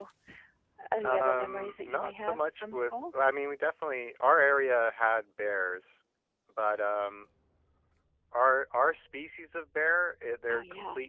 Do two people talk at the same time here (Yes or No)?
Yes